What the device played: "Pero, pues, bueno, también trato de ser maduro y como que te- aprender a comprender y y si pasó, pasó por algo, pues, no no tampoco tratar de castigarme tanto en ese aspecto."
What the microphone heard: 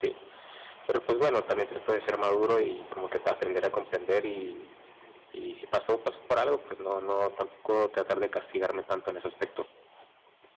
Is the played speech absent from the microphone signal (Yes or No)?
No